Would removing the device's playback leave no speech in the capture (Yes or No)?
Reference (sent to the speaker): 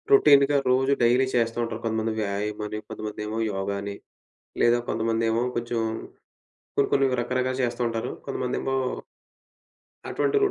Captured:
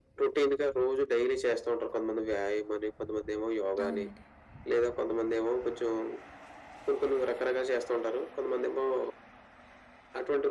No